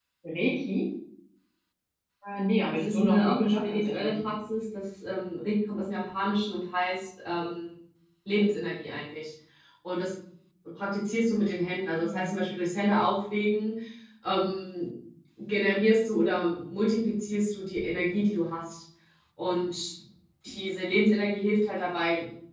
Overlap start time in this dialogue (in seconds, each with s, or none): 2.7 s